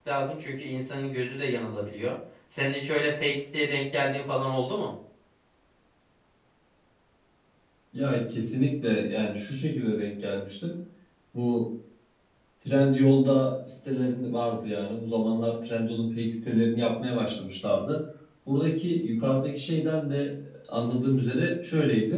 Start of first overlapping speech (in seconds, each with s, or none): none